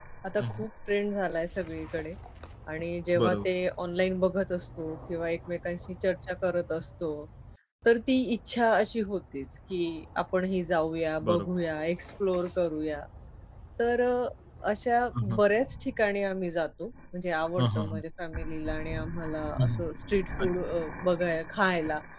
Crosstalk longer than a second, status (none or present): none